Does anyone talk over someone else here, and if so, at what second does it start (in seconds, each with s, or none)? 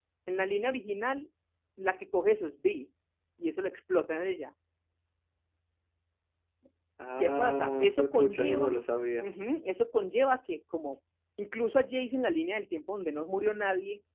7.1 s